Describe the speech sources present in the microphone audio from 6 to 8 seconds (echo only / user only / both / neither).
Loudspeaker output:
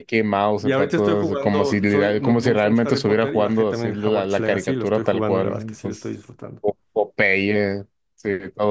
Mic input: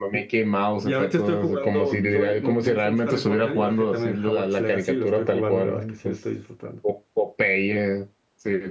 echo only